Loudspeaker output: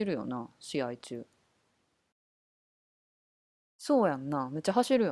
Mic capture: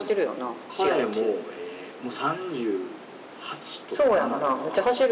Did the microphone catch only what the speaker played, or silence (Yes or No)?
No